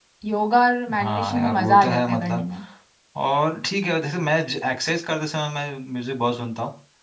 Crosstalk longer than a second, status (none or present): present